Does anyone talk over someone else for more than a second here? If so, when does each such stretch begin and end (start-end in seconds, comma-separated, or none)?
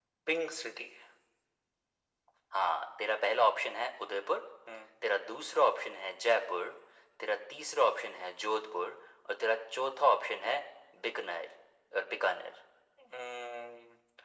none